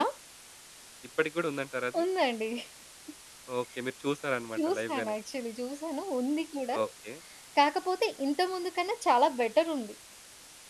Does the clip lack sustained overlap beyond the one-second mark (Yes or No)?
Yes